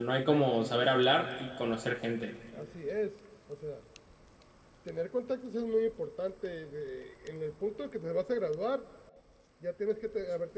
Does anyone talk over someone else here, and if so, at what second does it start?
none

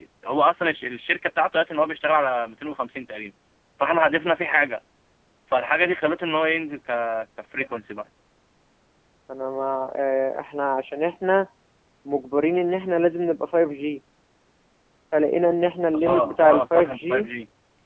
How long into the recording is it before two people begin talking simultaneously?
15.9 s

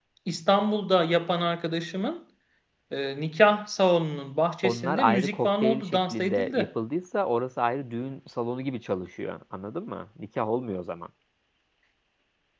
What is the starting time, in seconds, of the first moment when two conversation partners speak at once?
4.6 s

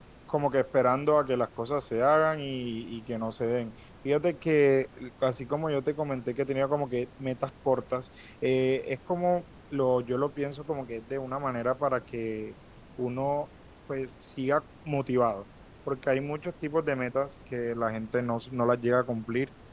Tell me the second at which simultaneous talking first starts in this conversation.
none

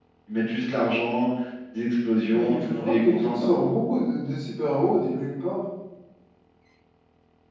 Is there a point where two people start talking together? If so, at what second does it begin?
2.3 s

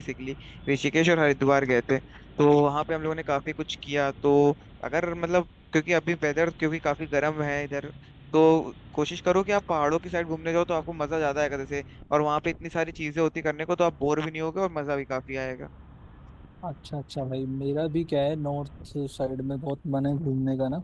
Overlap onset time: none

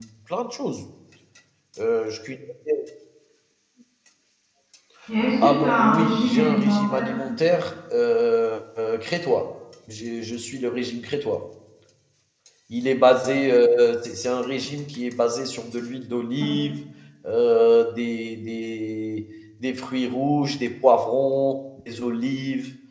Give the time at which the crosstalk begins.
5.4 s

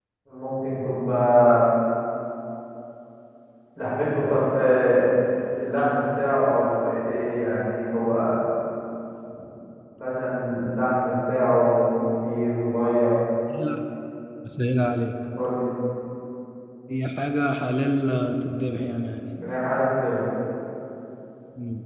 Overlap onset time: none

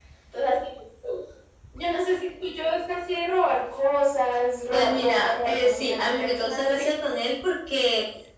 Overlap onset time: 4.7 s

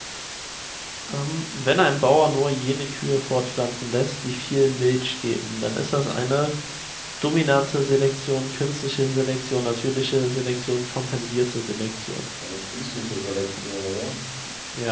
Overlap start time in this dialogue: none

